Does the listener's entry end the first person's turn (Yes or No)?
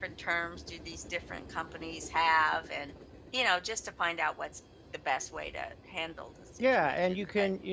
Yes